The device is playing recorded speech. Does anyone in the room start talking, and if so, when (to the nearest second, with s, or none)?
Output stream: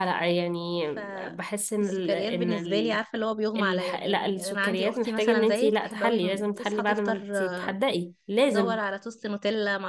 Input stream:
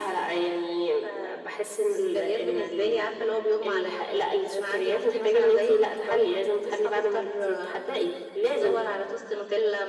none